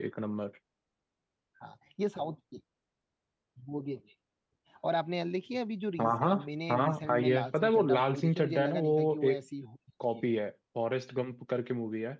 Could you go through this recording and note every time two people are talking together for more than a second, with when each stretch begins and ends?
6.7-9.4

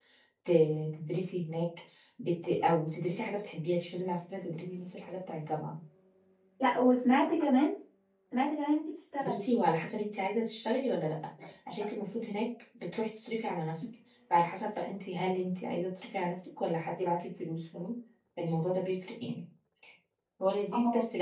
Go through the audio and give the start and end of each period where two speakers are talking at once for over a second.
none

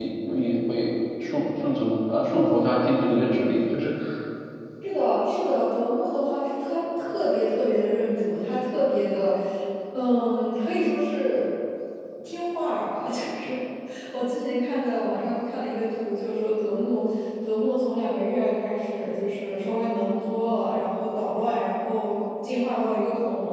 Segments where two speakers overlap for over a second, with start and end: none

